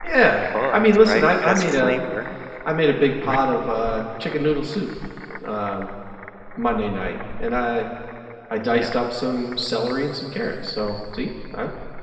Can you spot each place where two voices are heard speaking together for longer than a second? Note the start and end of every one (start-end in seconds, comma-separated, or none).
0.7-2.0